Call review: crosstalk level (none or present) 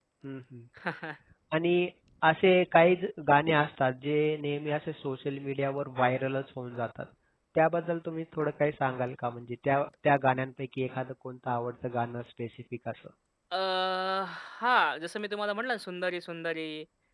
none